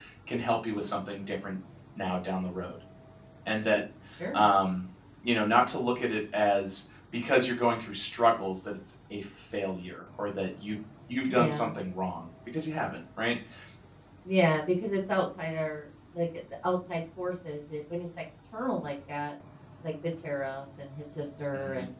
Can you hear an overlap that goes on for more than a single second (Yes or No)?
No